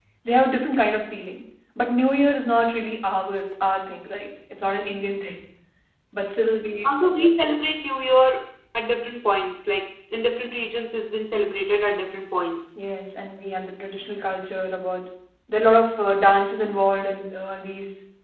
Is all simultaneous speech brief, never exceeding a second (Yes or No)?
Yes